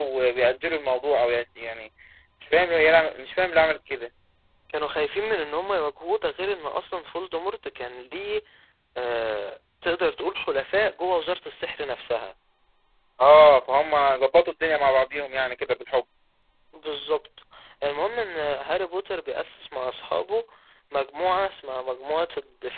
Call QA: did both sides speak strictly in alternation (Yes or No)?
Yes